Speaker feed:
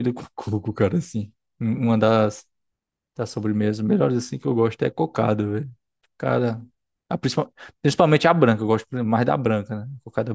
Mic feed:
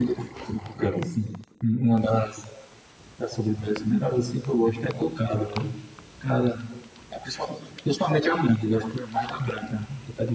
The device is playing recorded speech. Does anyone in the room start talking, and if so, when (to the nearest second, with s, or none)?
none